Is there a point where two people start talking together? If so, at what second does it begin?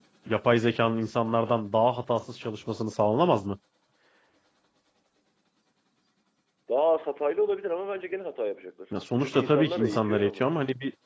9.2 s

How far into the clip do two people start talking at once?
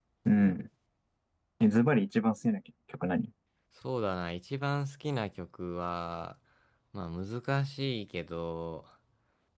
none

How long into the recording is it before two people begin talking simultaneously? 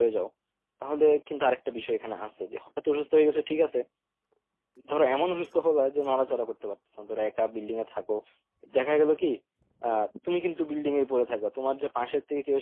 none

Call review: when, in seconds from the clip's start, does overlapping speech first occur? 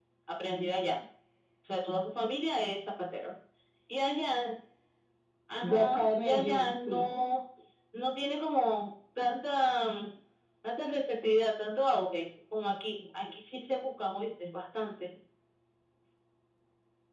5.6 s

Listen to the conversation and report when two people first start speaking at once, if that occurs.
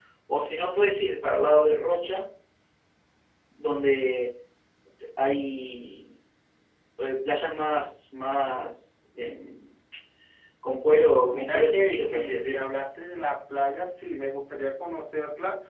11.3 s

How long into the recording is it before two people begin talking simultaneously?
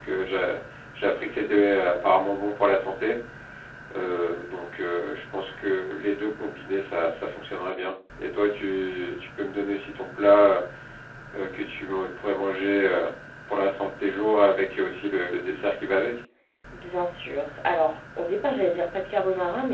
none

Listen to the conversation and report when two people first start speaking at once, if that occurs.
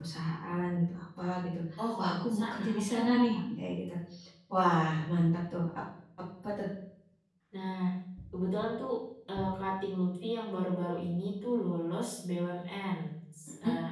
2.0 s

